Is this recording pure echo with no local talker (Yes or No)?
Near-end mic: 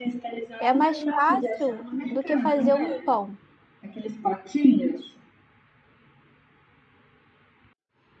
No